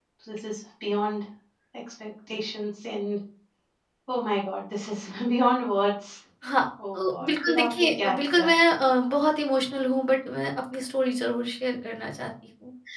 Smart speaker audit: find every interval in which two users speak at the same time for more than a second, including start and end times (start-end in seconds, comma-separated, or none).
6.9-8.5